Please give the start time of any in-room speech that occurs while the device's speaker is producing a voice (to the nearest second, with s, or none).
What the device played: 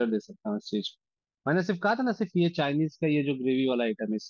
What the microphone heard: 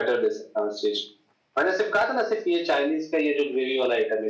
none